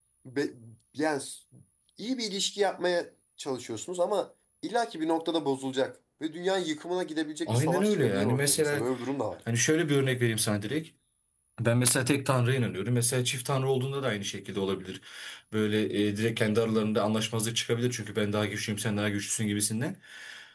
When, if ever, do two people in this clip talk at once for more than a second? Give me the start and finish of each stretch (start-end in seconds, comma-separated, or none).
7.5-8.8